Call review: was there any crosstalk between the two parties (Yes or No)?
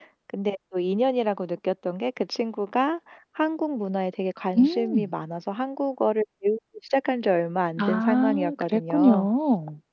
Yes